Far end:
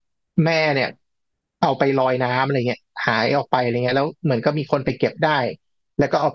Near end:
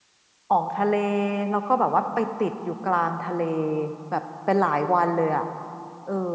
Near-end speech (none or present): present